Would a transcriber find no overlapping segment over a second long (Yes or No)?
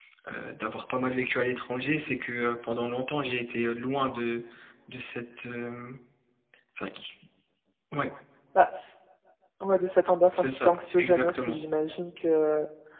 No